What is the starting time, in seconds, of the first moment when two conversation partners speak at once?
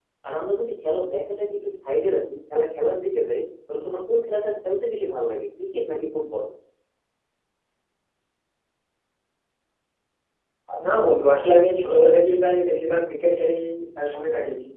none

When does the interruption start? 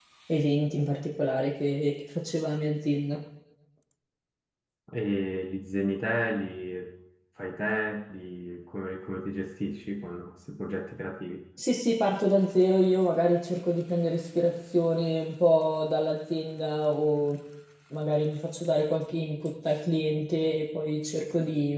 none

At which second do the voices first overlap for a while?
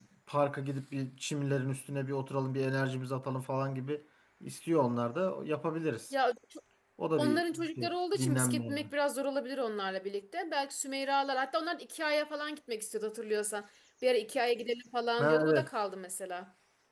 7 s

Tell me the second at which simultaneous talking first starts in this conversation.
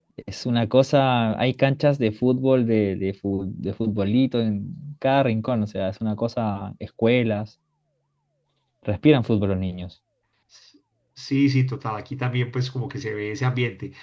none

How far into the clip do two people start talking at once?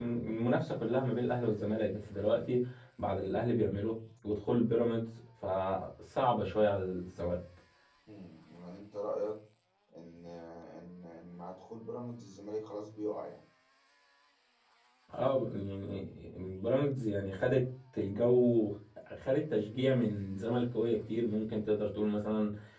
none

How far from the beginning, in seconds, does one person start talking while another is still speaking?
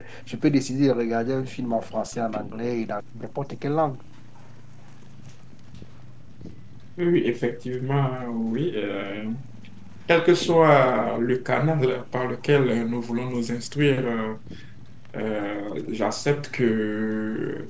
none

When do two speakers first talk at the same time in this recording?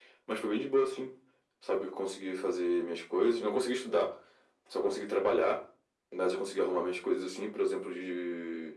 none

